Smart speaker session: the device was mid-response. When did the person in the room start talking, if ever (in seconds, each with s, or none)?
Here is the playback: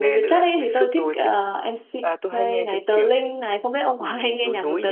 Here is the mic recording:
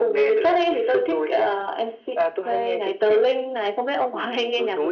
none